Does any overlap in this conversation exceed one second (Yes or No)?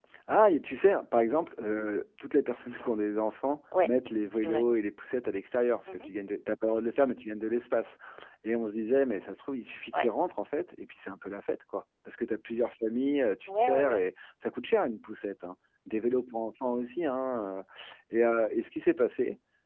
No